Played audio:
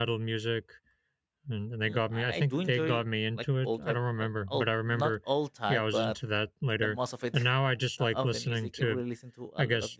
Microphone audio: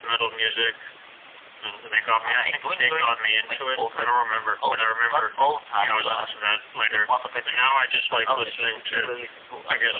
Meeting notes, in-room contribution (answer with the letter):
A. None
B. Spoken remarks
A